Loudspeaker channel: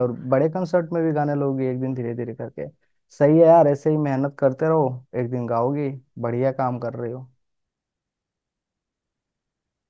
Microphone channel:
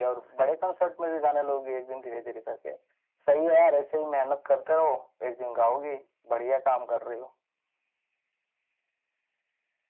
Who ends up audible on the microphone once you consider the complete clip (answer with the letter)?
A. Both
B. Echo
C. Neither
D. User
B